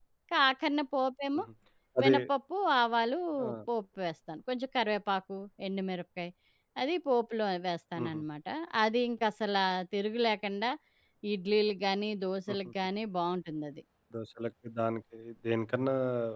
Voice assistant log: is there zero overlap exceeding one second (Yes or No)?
Yes